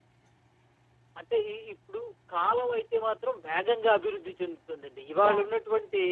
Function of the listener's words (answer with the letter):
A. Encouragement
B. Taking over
A